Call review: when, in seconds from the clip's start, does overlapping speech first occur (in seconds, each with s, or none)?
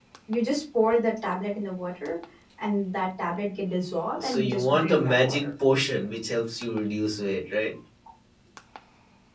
4.1 s